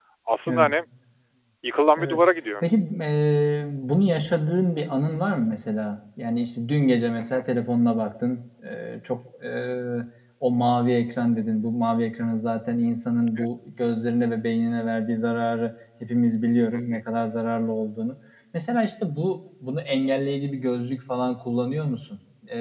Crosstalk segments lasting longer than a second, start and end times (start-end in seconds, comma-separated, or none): none